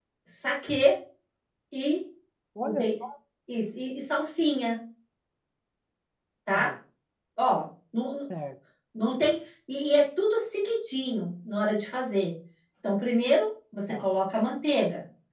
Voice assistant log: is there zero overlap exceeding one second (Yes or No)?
Yes